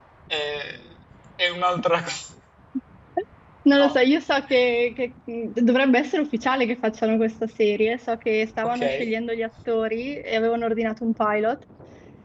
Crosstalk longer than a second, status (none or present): none